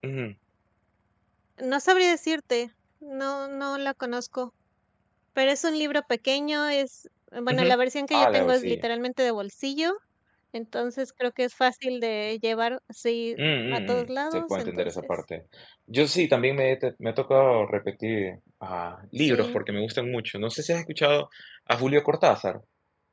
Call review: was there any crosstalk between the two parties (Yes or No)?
Yes